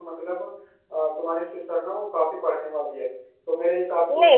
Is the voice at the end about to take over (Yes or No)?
Yes